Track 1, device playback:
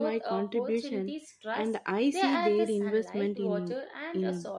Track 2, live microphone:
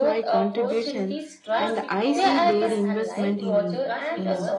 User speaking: Yes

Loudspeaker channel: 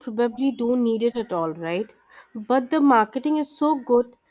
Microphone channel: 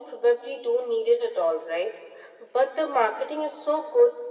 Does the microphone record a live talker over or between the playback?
No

